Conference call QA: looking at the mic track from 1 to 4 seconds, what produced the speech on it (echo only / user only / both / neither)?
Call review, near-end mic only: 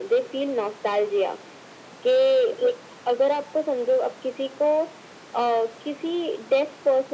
echo only